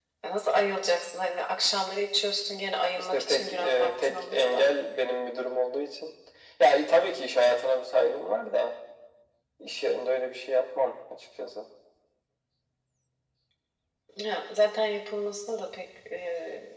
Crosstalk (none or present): present